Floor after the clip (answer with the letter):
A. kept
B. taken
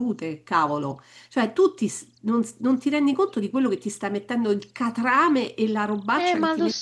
B